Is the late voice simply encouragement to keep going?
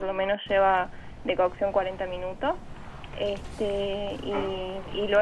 Yes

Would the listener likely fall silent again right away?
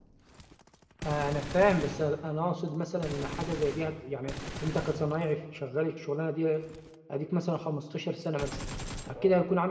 Yes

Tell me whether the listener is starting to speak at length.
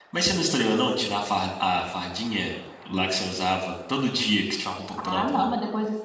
Yes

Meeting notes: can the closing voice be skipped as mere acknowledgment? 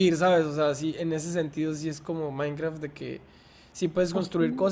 Yes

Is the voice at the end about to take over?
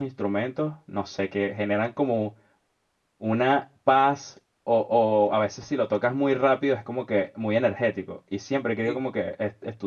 No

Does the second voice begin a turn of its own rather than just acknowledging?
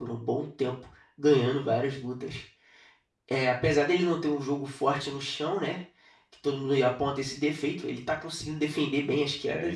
Yes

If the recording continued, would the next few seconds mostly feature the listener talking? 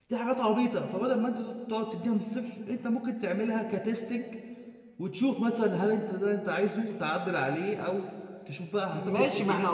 Yes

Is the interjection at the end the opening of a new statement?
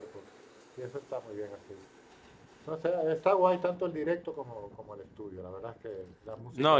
Yes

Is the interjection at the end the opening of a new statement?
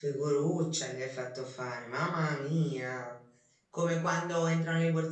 No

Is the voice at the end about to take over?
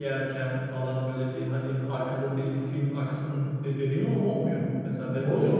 Yes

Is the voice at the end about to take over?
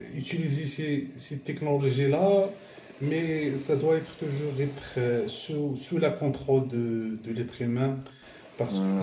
Yes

